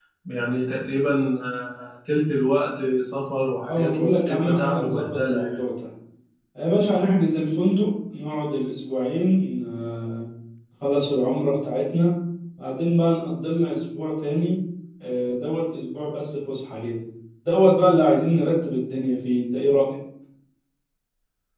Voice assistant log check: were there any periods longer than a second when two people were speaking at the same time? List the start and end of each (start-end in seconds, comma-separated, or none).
3.7-5.6